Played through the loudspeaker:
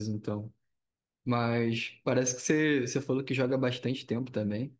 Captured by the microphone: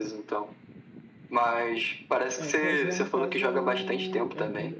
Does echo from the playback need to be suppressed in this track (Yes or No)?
Yes